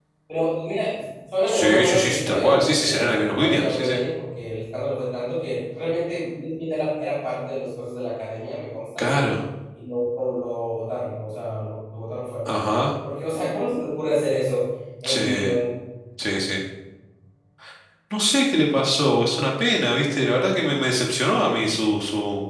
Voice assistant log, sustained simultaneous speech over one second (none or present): present